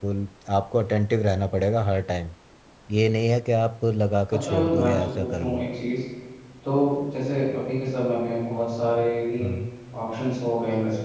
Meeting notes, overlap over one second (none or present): present